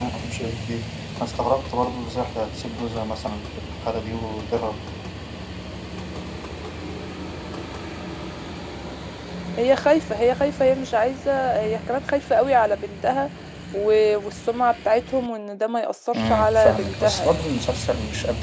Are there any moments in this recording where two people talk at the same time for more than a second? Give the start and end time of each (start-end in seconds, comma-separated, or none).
16.1-17.5